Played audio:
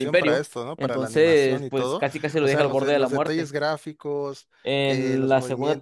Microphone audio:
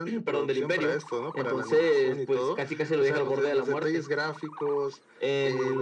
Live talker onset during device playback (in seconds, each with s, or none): none